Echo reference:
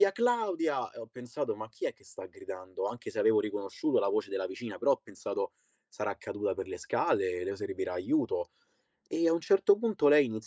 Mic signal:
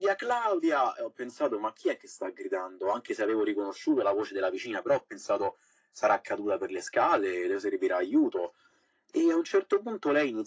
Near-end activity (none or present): none